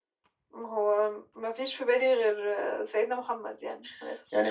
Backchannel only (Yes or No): No